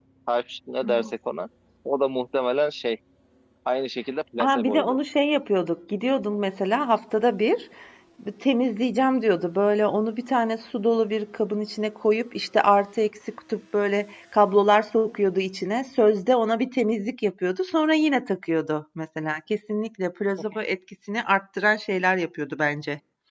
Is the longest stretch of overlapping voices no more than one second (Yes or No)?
Yes